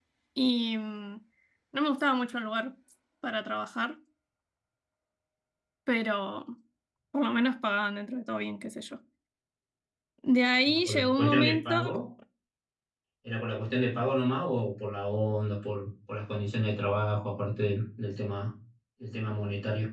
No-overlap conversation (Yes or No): No